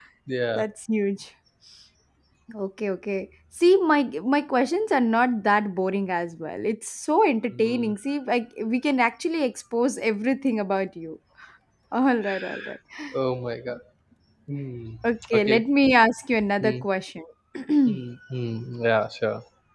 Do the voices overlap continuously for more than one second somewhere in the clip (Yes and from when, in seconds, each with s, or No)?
No